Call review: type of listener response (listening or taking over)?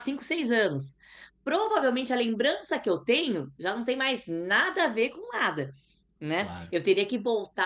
listening